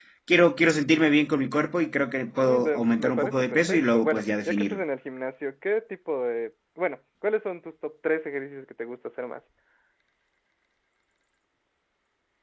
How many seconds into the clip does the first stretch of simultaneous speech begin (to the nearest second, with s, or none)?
2 s